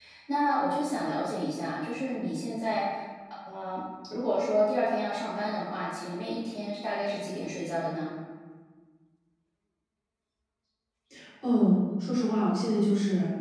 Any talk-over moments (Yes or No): No